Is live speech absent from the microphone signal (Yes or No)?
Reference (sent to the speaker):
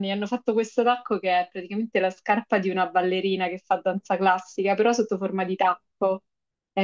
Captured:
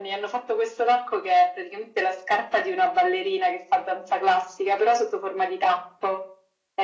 Yes